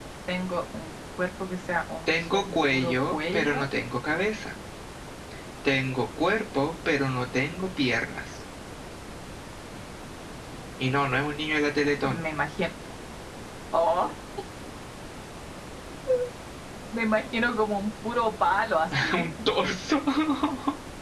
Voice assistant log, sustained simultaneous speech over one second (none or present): present